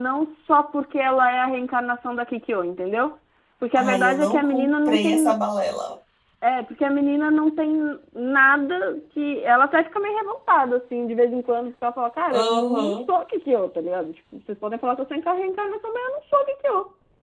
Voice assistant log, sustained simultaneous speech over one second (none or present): present